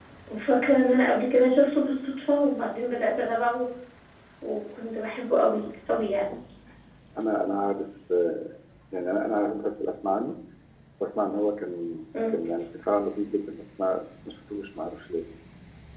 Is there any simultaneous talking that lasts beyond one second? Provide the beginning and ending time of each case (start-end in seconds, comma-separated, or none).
none